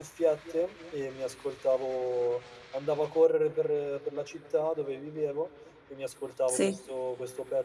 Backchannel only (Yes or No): Yes